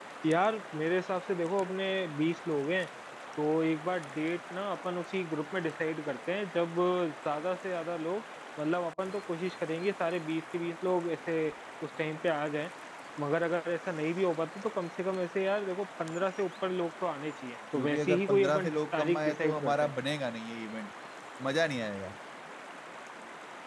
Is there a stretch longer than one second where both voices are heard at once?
Yes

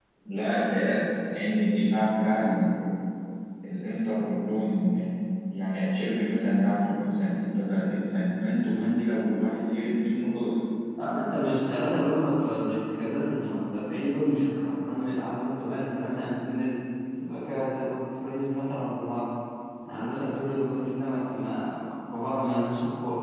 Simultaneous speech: No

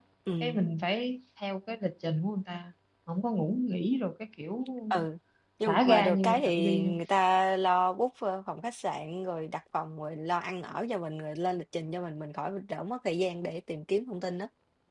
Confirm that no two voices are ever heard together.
No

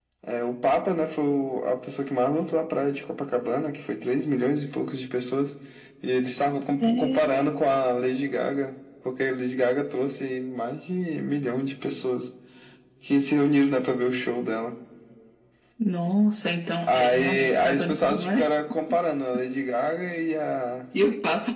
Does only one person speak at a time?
No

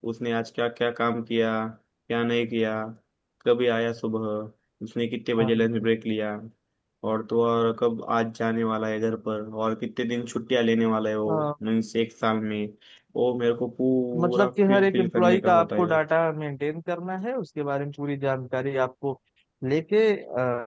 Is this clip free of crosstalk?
No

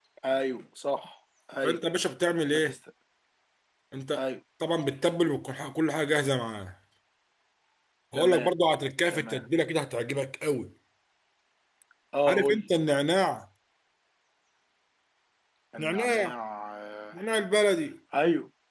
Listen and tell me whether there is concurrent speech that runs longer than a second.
No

